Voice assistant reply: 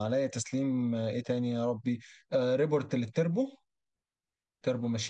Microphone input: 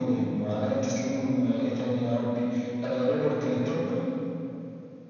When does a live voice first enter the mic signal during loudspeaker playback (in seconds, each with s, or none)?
none